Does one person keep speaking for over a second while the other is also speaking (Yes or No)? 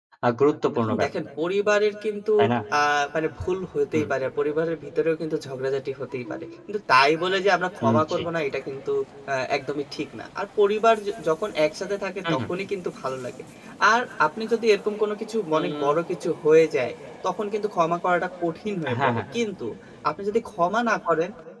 No